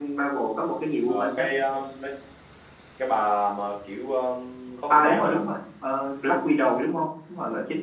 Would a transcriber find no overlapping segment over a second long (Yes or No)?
Yes